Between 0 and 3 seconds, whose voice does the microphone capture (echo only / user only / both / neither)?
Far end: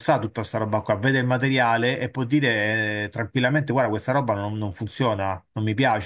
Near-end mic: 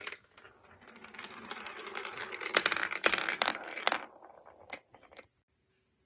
neither